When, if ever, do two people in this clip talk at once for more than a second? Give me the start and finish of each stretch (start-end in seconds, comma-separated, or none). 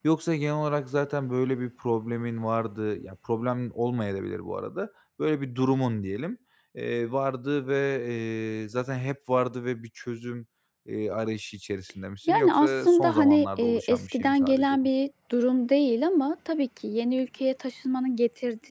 12.3-14.8